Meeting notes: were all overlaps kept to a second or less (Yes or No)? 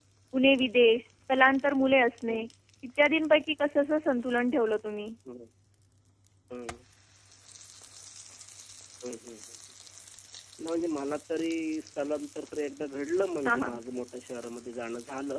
Yes